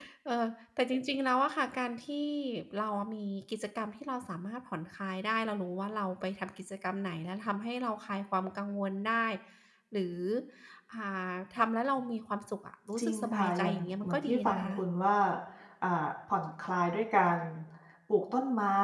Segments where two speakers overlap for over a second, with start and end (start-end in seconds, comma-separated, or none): 13.0-14.7